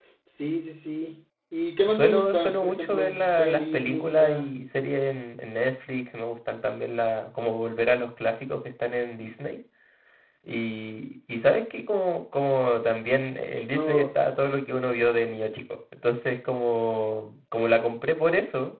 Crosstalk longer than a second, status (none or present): present